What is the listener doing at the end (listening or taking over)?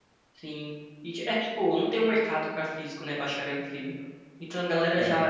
listening